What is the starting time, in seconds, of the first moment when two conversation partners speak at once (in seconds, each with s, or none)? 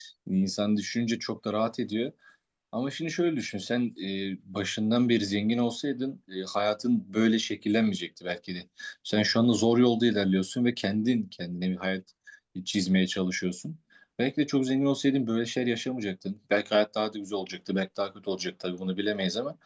none